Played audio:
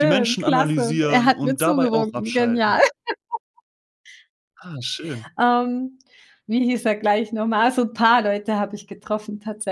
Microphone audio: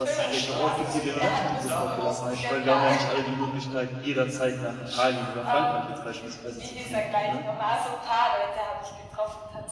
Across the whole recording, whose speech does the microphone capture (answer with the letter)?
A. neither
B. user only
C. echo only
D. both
D